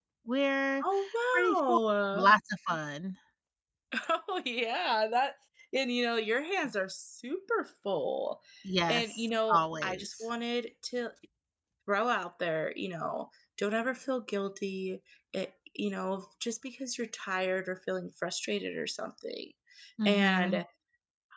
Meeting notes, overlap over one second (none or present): present